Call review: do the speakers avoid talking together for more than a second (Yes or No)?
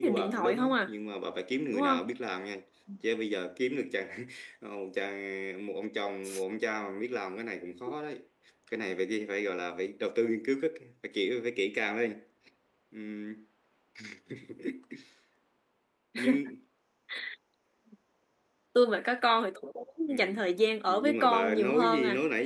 No